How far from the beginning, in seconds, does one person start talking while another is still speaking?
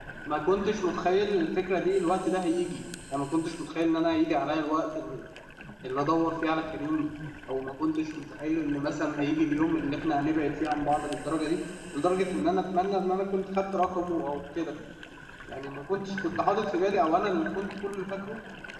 none

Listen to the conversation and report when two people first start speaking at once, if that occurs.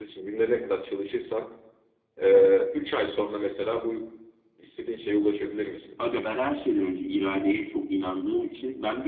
none

